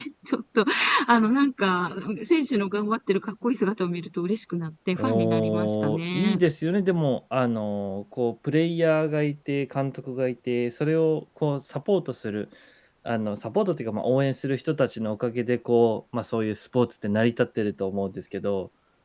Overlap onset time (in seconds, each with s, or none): 5.0 s